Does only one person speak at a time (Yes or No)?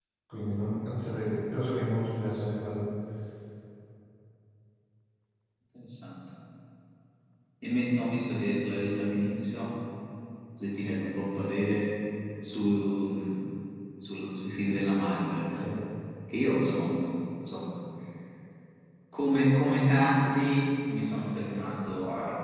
Yes